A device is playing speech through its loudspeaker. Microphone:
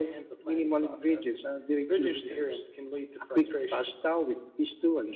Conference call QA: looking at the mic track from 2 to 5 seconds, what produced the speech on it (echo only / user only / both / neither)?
echo only